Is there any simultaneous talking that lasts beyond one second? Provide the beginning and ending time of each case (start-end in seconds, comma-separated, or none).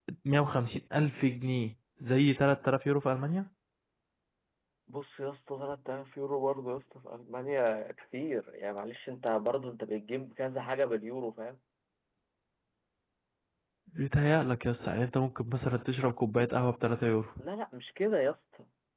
none